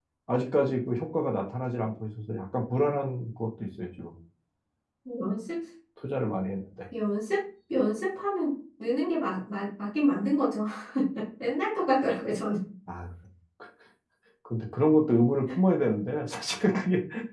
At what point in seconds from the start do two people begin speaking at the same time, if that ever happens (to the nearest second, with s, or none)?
none